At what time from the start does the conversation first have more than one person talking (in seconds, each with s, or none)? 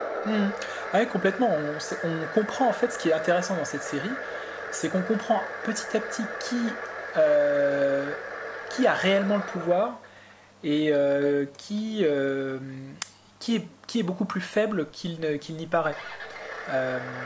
none